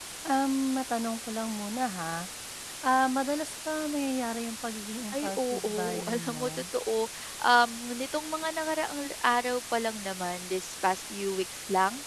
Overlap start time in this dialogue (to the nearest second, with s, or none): 5 s